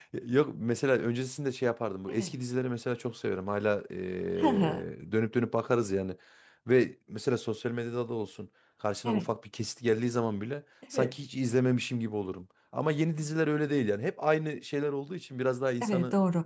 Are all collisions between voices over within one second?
Yes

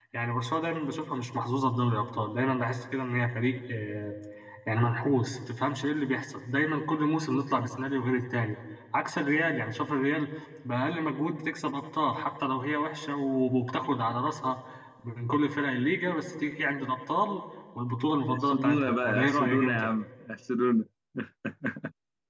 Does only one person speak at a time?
No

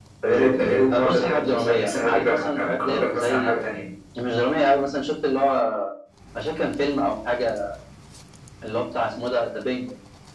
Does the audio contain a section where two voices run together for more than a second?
Yes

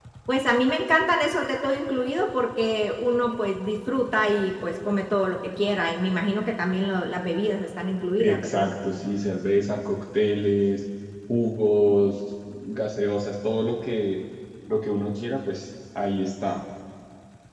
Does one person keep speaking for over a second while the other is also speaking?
No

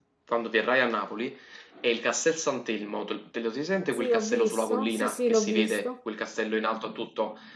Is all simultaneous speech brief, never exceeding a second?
No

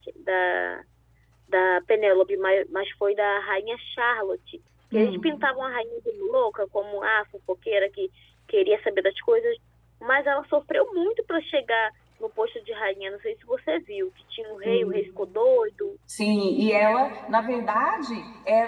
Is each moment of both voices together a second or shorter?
Yes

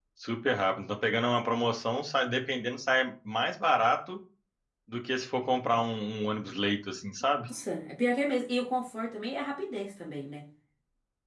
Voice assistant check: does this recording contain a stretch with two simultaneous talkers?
No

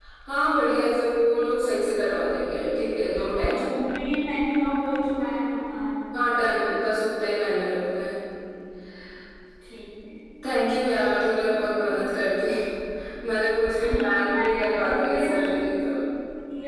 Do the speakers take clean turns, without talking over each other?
No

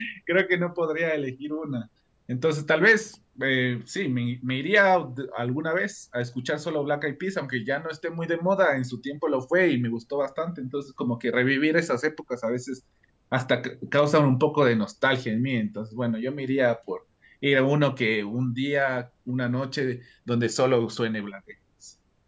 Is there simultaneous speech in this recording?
No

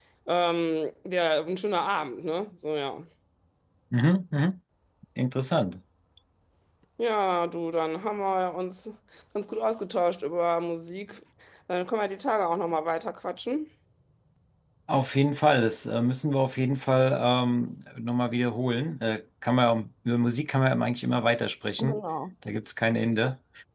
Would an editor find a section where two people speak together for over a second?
No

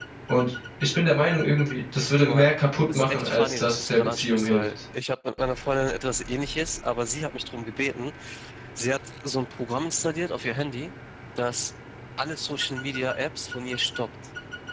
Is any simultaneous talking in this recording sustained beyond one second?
Yes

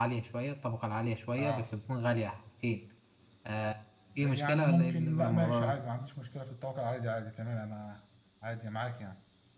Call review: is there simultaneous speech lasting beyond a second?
Yes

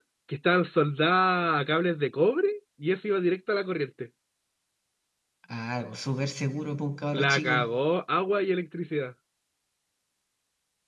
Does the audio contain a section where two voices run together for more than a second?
No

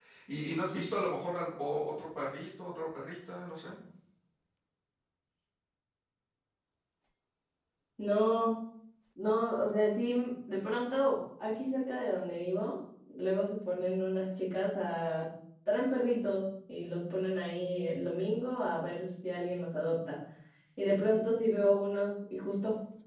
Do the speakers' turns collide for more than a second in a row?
No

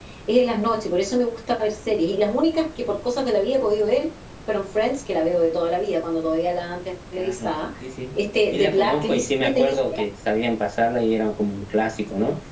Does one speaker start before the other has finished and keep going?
Yes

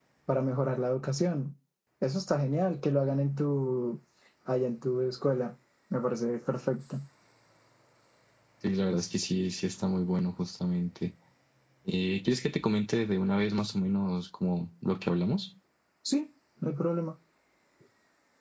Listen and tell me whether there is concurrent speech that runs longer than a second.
No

